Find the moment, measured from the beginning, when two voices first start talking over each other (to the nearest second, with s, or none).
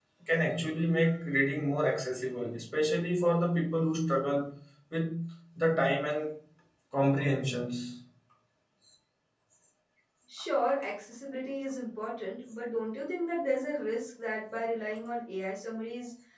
none